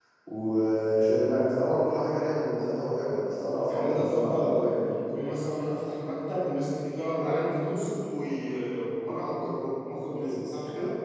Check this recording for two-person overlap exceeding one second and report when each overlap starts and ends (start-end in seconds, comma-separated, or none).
3.6-5.0